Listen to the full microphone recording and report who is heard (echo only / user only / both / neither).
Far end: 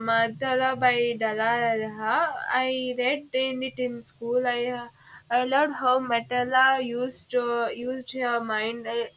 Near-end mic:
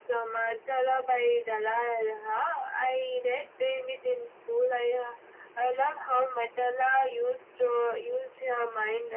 echo only